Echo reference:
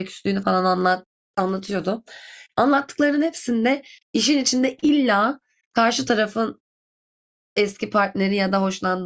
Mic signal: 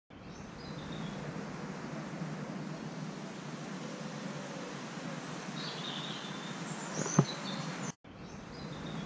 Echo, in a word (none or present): none